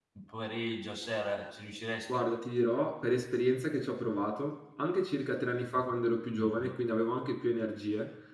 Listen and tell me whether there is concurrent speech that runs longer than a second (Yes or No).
No